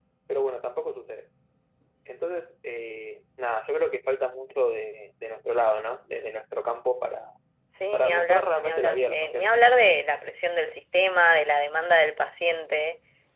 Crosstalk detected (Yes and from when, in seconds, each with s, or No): Yes, from 7.9 s